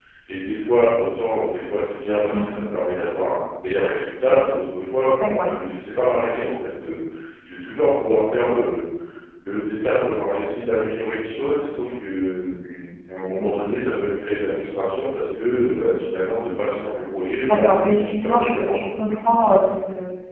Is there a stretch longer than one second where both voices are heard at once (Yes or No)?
Yes